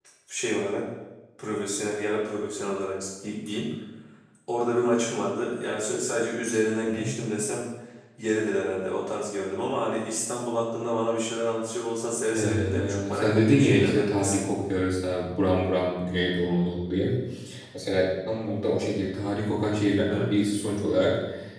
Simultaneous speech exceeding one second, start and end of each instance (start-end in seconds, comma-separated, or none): 12.4-14.4